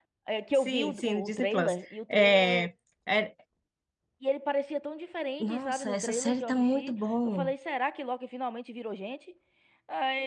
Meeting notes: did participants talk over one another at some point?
Yes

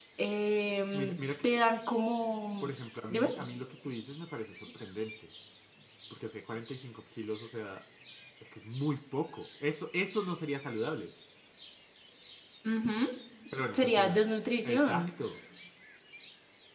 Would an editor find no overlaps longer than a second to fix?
Yes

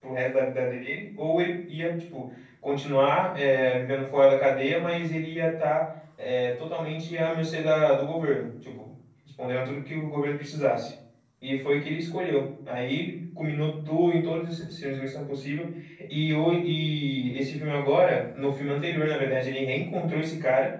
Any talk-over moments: No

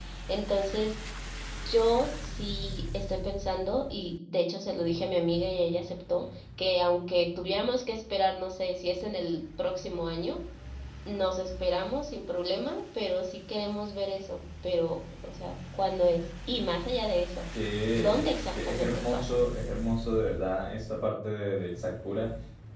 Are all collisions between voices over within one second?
No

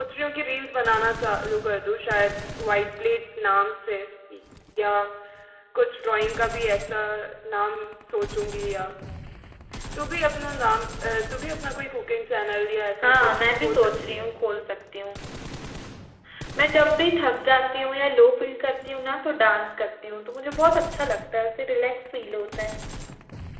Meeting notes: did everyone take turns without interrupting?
No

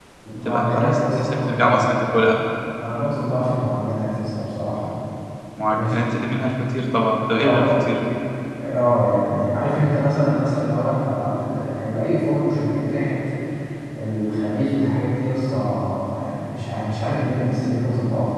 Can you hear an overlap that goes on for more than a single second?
Yes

